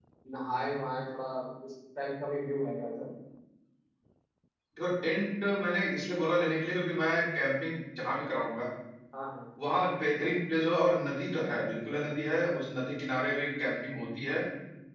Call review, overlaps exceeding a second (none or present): none